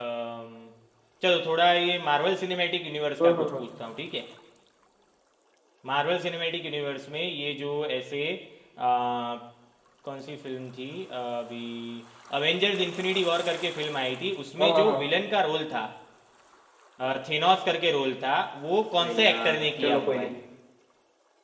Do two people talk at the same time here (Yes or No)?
Yes